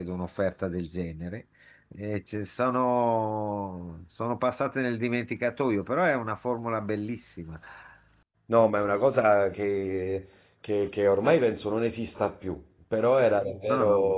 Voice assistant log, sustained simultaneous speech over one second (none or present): none